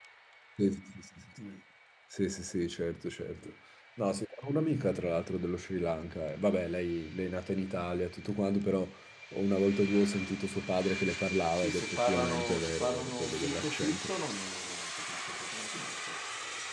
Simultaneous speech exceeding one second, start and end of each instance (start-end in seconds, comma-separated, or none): 11.6-14.1